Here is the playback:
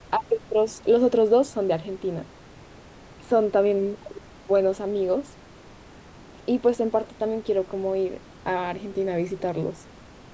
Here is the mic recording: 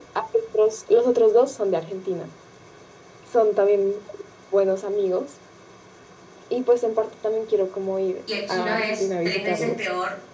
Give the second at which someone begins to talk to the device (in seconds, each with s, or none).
8.2 s